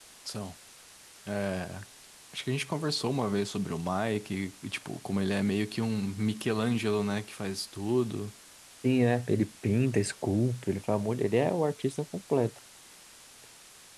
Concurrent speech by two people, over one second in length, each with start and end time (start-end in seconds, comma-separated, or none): none